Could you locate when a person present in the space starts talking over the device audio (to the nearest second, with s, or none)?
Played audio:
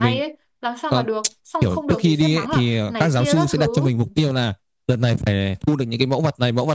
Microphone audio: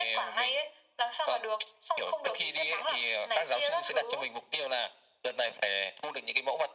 none